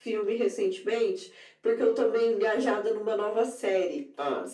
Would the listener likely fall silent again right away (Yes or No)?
Yes